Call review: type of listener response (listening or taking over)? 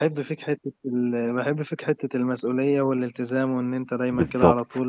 taking over